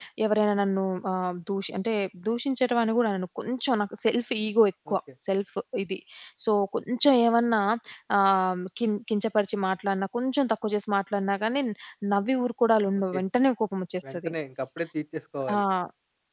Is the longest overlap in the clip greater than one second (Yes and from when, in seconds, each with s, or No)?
No